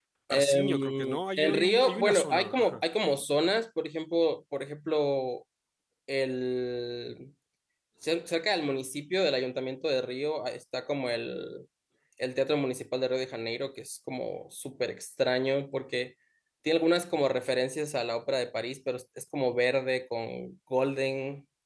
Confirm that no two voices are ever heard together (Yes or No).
No